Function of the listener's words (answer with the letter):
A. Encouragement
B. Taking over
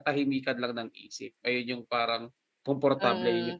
B